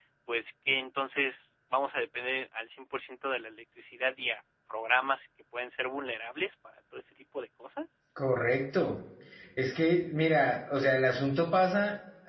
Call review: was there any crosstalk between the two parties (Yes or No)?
No